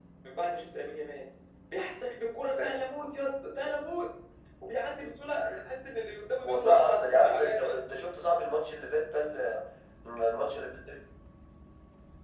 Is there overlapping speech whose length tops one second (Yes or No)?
Yes